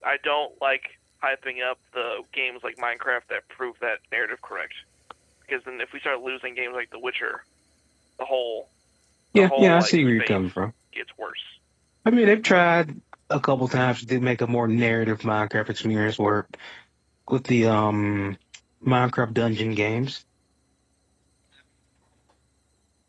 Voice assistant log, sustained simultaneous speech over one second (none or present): present